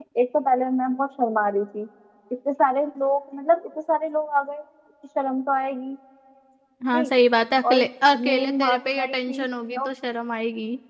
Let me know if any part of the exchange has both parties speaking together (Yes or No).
Yes